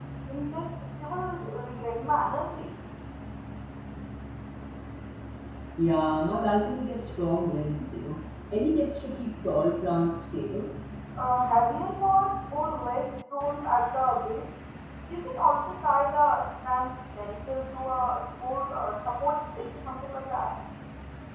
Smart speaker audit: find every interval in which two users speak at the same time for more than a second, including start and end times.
none

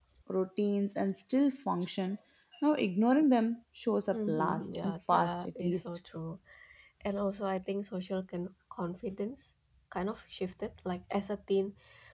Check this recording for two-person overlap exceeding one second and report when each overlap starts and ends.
4.1-5.9

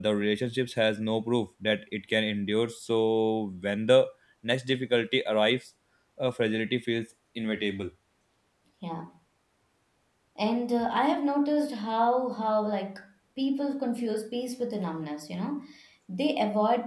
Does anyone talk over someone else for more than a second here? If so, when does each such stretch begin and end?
none

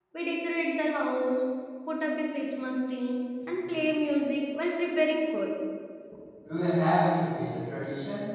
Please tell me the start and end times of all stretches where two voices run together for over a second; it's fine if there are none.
none

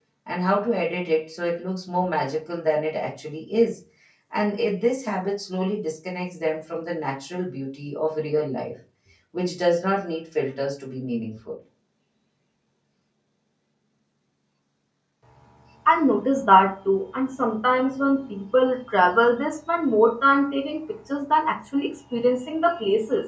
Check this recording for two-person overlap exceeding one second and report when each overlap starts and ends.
none

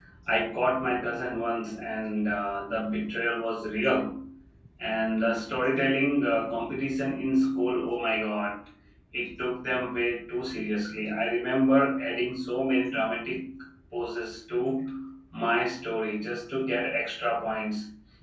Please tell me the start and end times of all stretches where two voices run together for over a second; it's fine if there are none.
none

